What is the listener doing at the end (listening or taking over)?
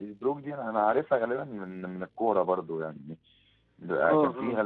listening